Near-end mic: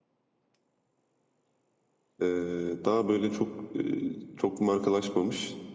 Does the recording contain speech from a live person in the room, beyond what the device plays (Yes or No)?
Yes